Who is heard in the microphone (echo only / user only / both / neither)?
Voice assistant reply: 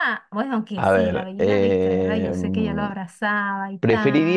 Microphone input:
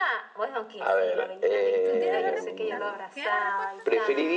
both